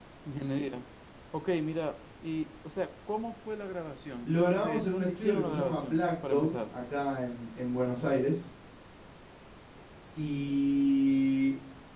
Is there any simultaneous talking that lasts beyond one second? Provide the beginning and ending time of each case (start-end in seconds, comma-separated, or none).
4.2-6.7